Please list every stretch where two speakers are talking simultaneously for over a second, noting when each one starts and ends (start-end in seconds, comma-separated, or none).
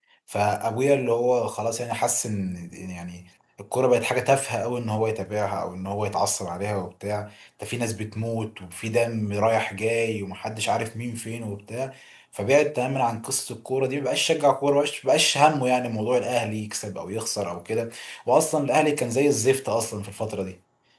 none